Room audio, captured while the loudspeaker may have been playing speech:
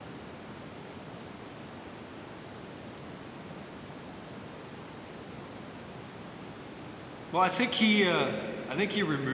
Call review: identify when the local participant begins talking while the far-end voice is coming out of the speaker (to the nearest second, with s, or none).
7 s